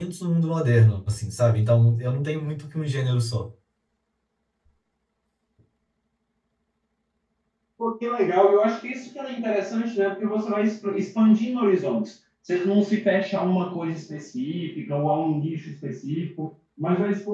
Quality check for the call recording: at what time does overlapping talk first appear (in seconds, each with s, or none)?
none